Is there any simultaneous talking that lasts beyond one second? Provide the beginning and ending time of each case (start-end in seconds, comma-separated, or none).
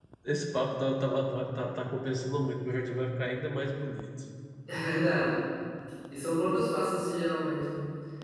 none